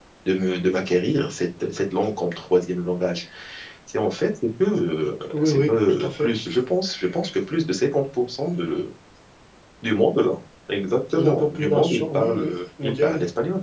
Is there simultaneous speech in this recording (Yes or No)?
Yes